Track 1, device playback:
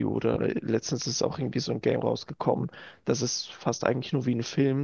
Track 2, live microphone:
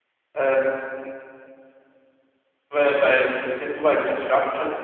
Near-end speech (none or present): present